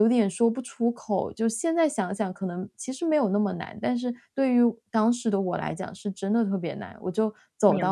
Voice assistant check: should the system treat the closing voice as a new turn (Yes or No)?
No